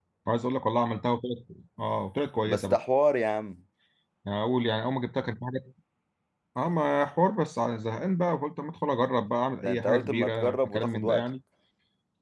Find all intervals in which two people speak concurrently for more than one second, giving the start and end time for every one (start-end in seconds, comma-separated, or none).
9.6-11.3